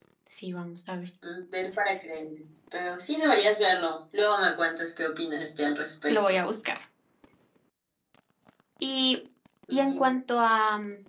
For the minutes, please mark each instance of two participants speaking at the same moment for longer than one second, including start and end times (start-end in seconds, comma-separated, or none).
none